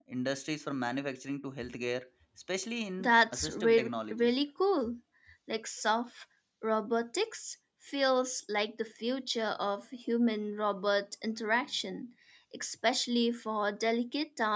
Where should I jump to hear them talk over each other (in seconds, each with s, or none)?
3.0 s